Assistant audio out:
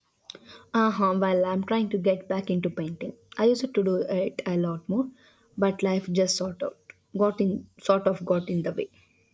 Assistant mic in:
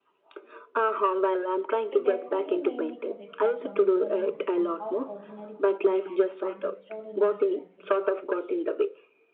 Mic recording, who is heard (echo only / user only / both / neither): both